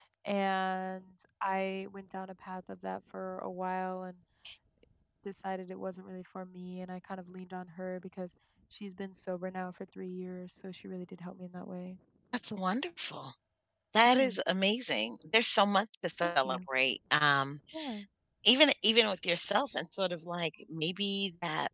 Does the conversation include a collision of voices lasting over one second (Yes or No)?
No